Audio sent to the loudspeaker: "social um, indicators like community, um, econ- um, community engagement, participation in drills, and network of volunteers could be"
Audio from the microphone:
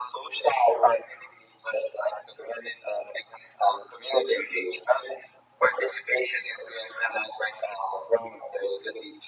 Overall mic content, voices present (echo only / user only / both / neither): echo only